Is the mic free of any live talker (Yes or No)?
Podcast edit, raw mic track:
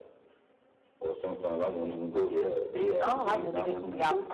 No